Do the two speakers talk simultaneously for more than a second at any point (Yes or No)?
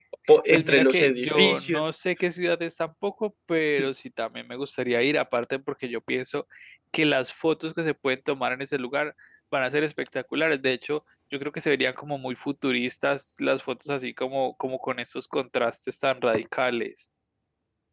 Yes